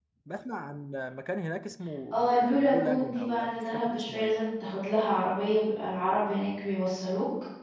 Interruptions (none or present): present